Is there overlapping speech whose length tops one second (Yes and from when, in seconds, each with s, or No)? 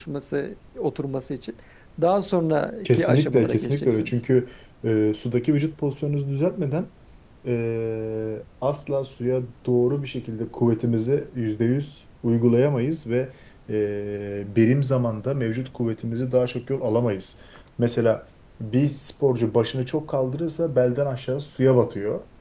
Yes, from 2.8 s